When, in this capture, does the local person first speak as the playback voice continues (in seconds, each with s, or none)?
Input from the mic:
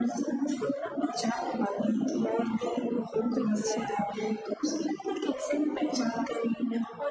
3.4 s